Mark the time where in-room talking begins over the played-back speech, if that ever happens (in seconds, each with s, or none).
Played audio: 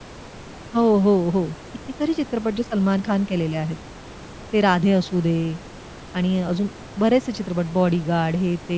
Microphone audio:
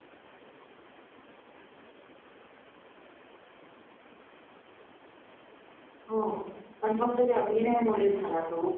6.1 s